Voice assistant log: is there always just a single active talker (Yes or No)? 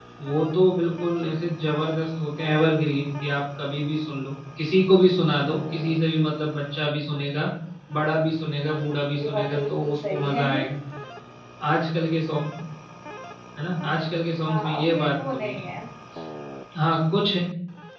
No